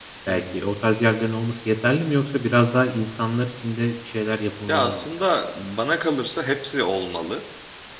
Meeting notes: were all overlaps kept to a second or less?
Yes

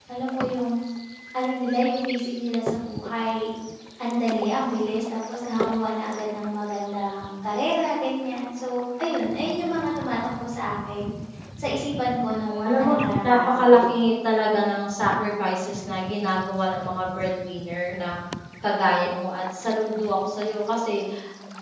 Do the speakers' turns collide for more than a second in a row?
Yes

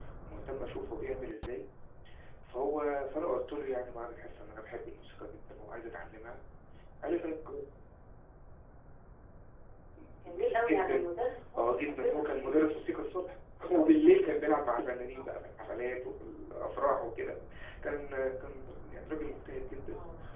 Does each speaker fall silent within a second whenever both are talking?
No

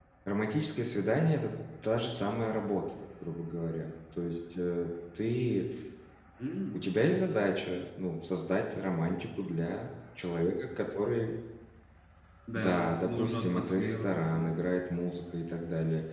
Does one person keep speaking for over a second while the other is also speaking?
Yes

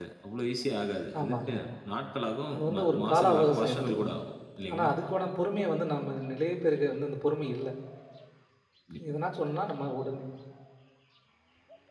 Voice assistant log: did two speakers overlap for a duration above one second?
Yes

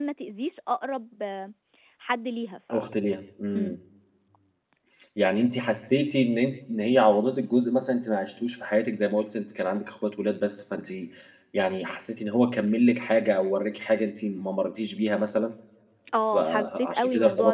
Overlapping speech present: Yes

